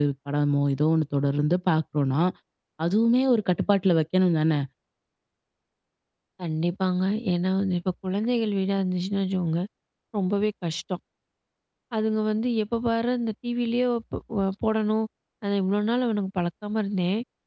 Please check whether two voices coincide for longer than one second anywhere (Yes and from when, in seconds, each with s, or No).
No